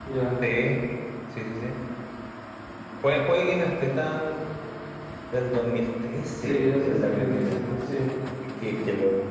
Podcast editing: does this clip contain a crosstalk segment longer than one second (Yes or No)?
Yes